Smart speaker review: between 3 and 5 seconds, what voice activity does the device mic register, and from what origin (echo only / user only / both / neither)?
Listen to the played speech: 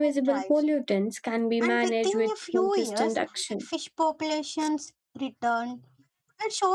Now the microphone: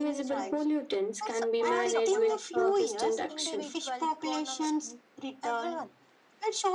both